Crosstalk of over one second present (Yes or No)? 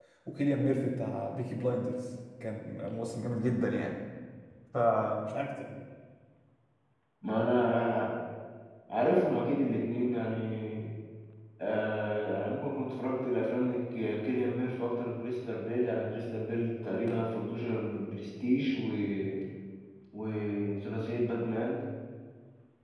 No